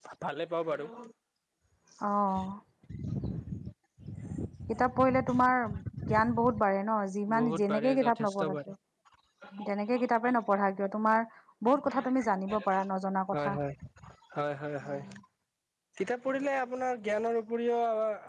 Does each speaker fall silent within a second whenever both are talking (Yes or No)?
No